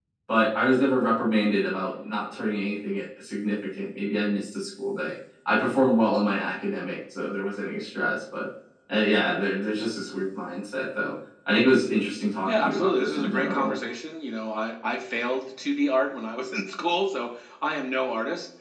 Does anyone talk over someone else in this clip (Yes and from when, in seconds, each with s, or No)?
Yes, from 12.5 s